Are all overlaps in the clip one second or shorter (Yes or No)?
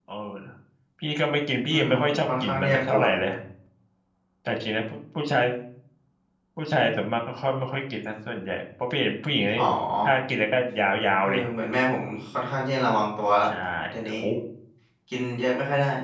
No